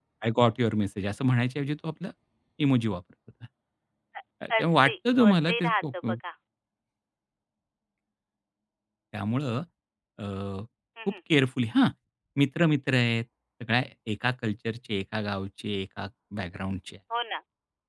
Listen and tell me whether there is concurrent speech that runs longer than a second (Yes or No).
Yes